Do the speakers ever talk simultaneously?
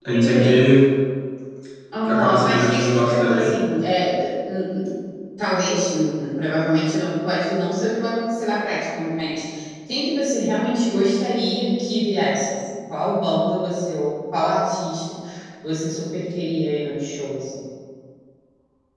Yes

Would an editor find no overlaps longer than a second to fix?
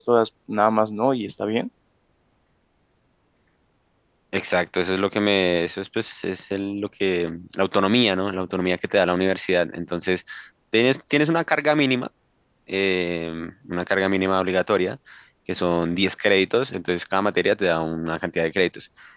Yes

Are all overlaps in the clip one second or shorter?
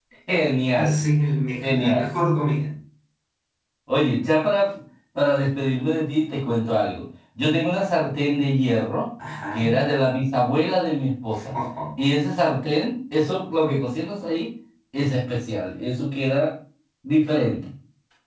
Yes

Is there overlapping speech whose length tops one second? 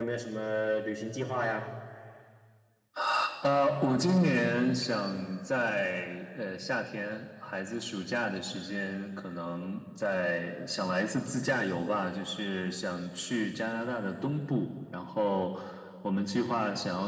No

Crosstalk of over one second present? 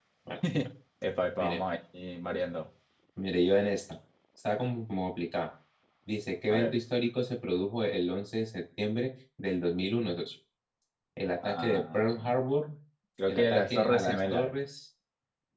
Yes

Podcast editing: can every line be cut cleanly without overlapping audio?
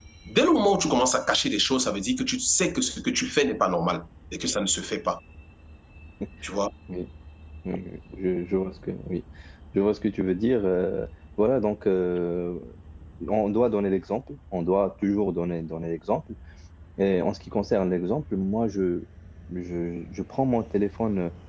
Yes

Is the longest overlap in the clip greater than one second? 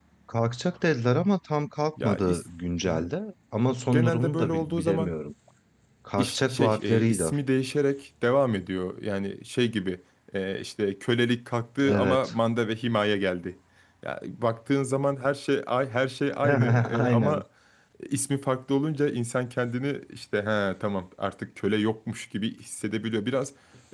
Yes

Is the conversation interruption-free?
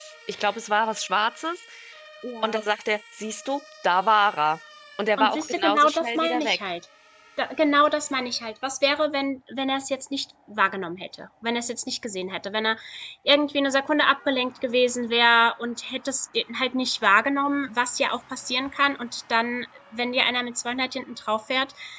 No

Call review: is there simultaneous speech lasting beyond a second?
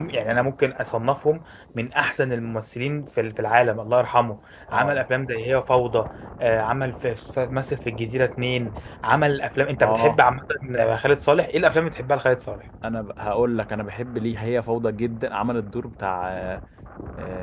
No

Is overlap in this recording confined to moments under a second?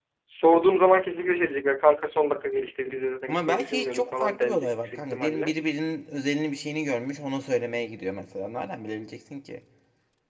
No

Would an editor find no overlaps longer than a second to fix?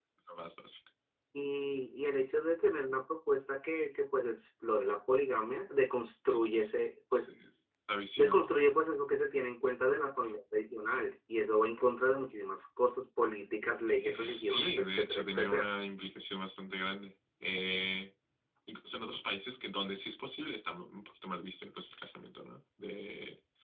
No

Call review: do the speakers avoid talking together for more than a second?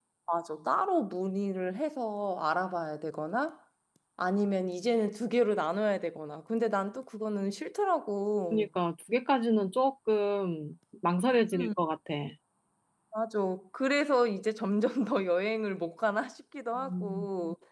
Yes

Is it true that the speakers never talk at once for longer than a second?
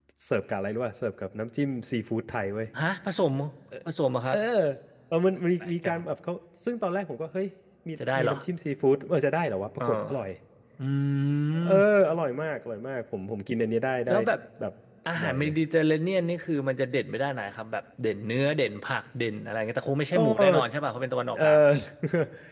Yes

